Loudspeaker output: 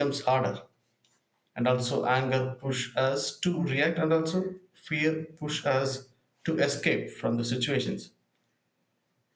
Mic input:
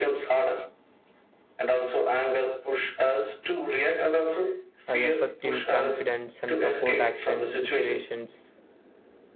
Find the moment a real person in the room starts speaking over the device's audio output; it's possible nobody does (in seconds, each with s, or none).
4.9 s